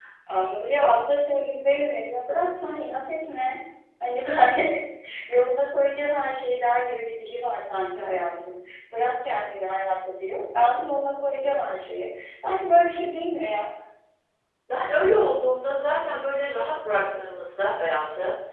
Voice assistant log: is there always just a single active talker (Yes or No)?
Yes